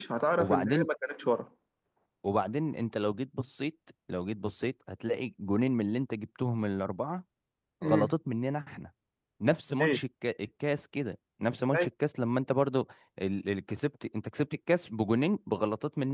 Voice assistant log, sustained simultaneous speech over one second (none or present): none